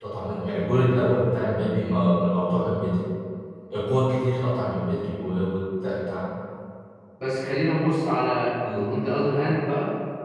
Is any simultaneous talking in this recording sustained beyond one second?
No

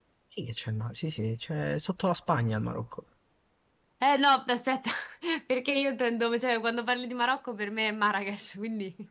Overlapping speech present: No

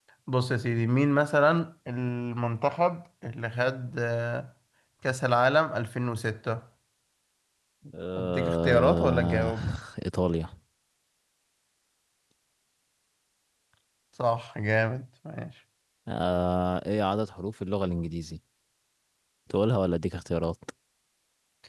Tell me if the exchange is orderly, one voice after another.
No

